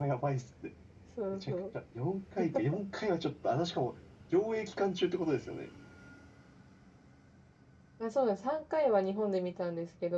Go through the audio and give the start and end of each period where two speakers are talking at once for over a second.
none

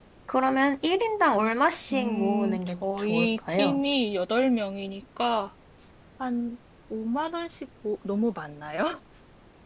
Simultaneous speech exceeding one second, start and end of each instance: 1.9-3.8

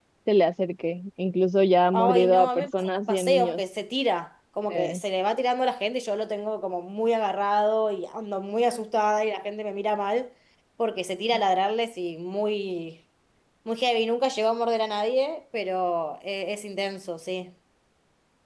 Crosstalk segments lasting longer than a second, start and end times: 1.9-3.6

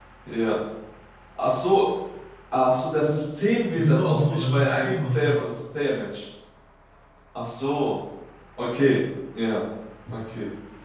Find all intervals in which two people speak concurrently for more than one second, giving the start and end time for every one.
3.7-5.4

